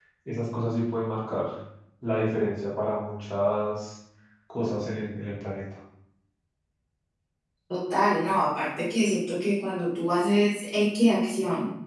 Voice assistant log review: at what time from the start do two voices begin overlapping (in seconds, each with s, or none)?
none